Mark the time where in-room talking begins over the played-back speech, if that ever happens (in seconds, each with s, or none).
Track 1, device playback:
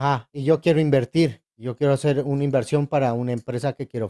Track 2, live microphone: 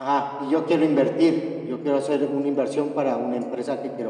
none